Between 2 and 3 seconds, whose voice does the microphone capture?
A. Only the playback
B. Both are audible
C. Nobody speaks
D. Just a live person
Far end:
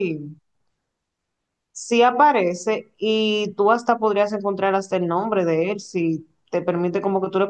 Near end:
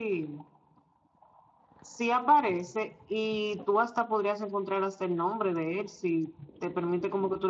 A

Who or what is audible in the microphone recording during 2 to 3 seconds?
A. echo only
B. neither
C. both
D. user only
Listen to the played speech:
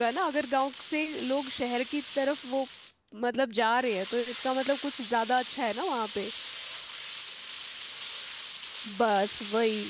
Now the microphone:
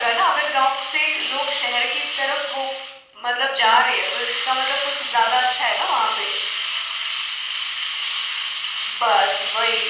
A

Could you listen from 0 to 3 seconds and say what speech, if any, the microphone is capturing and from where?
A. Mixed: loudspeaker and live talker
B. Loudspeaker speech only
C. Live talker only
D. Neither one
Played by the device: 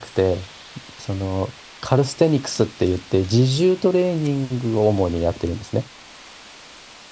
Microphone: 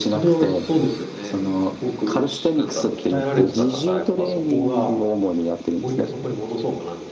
A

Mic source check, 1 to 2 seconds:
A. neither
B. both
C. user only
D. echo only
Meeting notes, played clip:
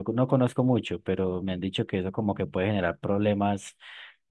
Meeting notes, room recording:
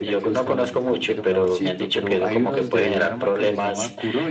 B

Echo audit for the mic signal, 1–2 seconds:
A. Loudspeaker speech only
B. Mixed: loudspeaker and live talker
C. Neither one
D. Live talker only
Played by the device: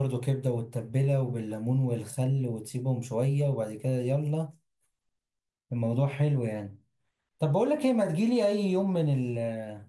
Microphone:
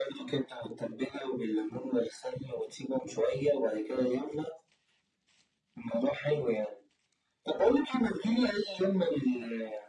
A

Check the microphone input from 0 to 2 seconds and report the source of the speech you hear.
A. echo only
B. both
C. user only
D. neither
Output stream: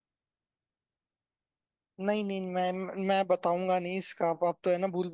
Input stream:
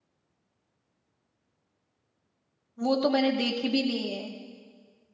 D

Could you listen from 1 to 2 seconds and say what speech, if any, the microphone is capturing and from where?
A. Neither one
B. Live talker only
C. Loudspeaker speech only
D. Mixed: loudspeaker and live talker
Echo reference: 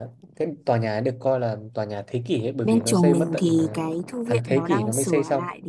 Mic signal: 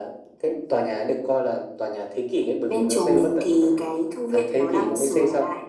C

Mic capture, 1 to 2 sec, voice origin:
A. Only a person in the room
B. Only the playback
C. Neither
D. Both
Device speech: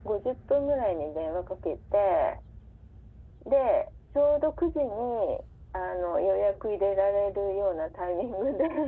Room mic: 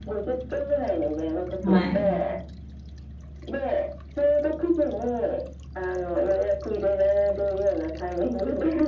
D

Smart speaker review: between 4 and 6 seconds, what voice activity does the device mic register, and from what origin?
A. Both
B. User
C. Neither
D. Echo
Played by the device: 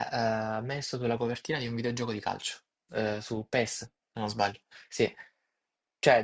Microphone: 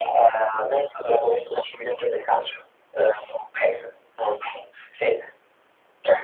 D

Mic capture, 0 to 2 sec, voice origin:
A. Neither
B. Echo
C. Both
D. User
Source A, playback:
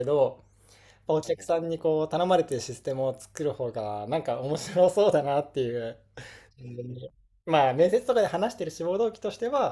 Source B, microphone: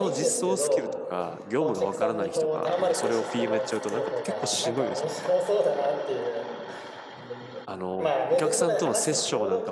C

